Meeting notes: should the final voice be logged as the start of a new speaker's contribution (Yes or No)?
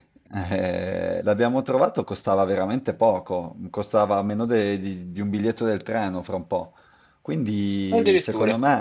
No